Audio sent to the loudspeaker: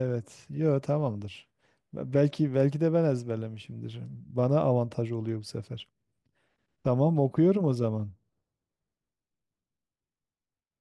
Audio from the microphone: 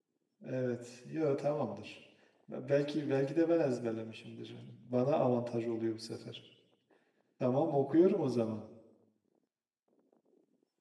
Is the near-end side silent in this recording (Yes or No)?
Yes